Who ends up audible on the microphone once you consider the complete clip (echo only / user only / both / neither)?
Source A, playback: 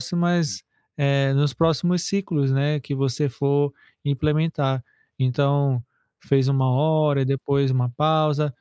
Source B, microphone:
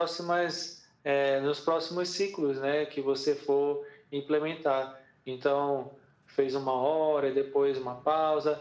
echo only